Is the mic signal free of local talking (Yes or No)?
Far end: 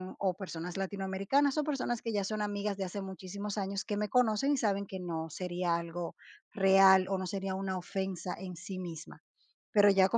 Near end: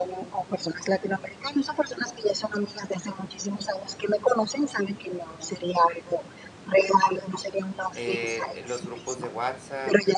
No